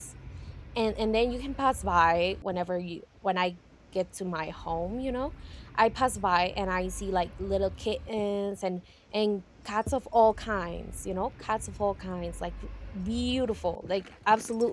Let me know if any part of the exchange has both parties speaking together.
No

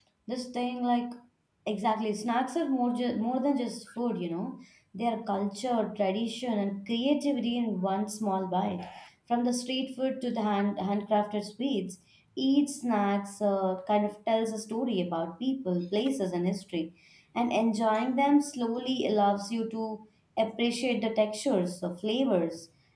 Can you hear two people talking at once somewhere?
No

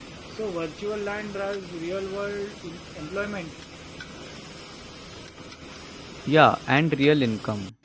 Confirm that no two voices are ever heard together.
Yes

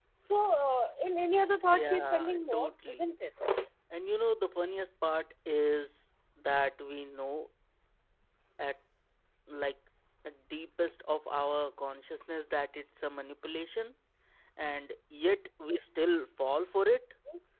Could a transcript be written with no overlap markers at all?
No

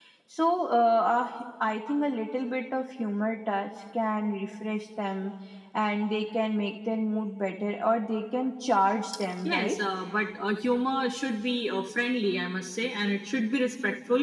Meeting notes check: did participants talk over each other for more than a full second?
No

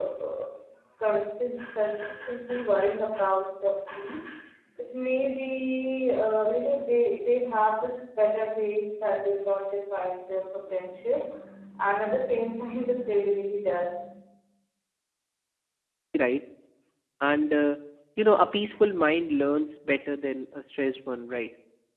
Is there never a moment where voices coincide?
Yes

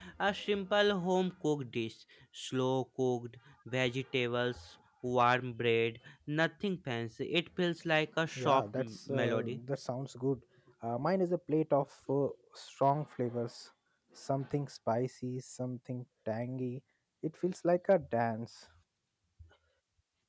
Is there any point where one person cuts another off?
Yes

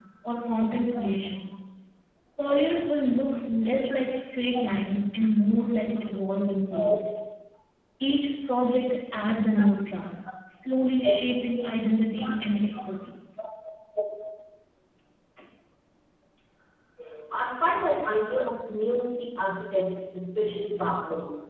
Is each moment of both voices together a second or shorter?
Yes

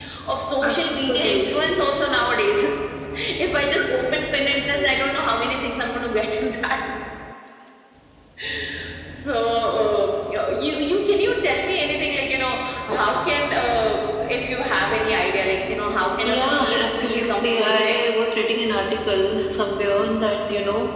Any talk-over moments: Yes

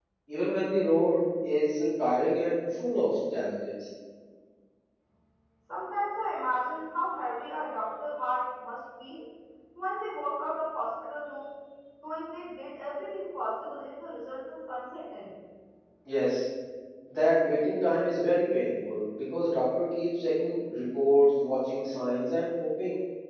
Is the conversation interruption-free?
Yes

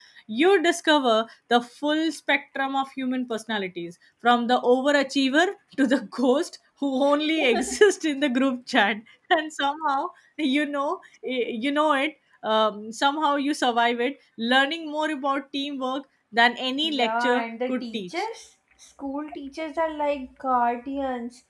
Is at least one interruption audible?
Yes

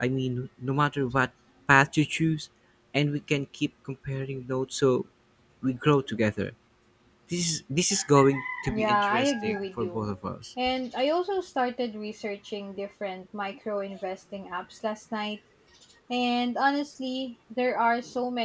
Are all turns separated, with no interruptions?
No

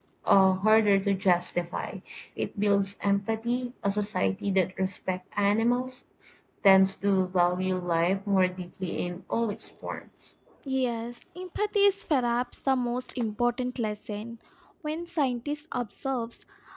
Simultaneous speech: No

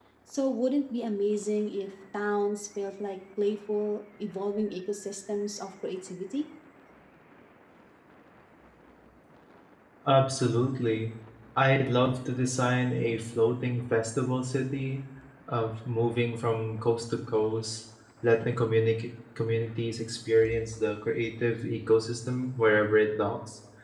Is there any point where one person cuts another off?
No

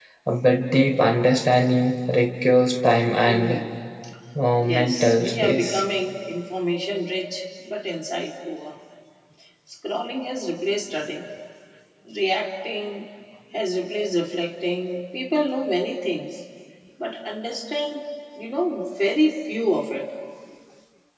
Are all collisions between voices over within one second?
No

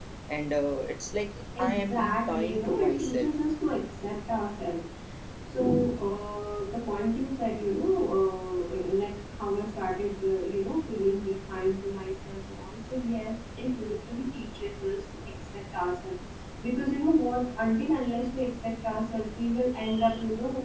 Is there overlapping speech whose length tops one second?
Yes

